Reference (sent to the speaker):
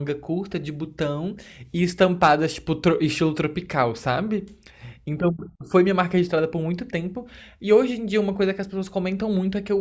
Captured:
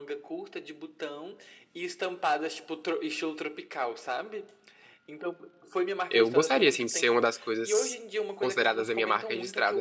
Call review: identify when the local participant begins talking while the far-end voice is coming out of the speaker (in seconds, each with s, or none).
6.1 s